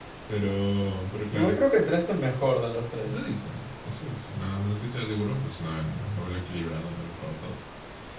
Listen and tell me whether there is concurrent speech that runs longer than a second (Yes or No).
No